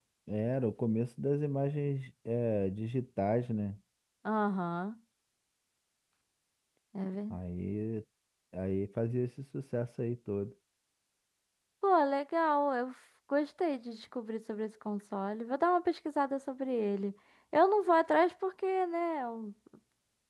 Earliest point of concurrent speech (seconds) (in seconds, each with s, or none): none